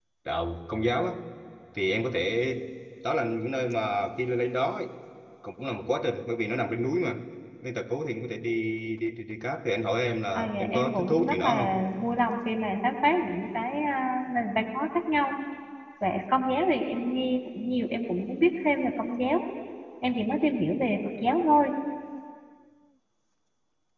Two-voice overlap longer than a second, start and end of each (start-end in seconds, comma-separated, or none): 10.3-11.8